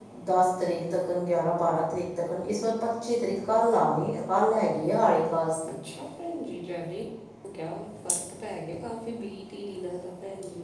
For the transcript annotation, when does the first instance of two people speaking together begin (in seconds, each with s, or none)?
none